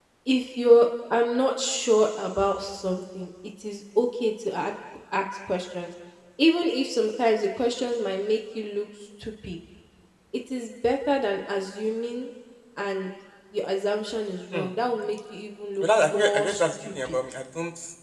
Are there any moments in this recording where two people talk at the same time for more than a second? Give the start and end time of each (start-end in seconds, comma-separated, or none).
15.8-17.2